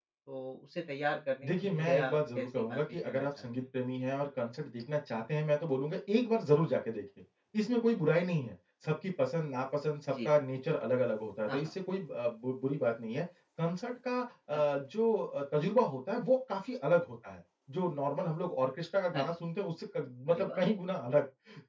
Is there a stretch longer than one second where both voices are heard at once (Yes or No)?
Yes